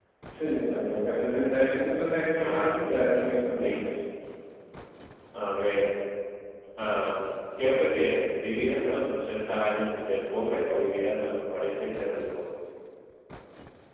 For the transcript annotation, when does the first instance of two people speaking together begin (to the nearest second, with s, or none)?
2 s